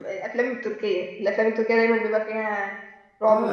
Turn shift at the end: Yes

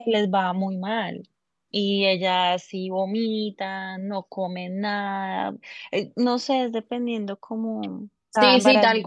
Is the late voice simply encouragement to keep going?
No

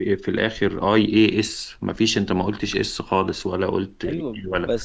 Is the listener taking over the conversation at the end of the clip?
Yes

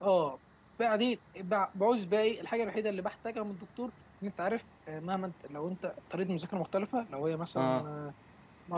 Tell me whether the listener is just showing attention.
Yes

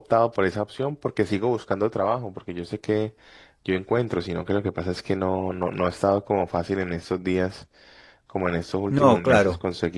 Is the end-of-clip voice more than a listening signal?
No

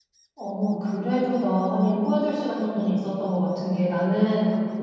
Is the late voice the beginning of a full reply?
No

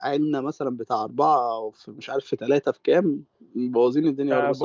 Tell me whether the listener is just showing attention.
No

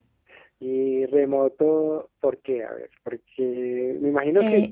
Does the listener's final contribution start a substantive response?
No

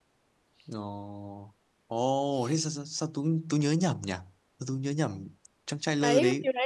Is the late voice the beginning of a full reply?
Yes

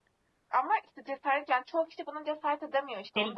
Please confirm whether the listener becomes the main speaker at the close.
Yes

